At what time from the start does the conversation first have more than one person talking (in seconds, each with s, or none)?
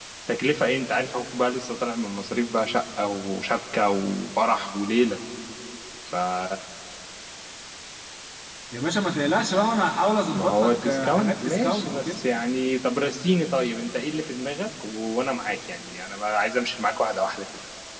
10.3 s